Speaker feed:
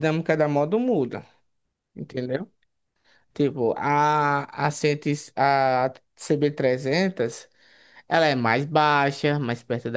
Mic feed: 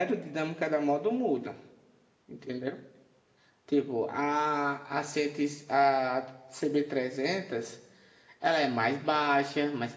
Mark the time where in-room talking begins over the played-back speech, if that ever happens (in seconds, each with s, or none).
none